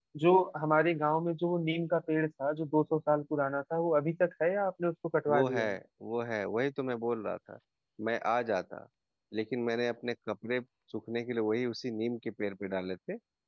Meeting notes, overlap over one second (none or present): none